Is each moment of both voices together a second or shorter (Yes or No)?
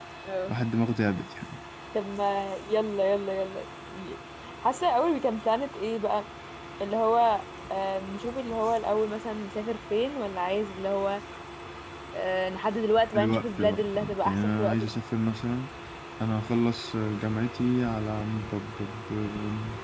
No